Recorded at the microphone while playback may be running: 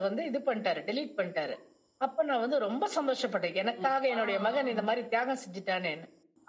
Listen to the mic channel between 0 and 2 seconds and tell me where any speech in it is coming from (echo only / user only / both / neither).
echo only